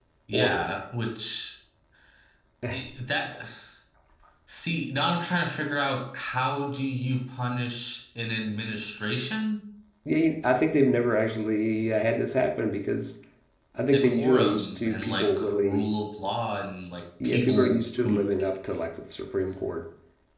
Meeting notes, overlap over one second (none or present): present